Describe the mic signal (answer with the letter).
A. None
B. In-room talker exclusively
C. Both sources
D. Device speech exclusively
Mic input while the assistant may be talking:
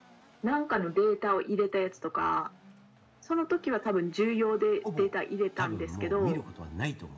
C